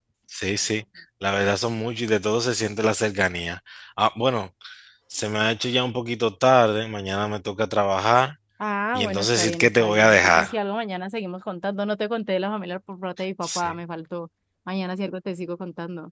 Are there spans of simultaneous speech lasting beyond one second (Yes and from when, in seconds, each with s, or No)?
Yes, from 8.9 s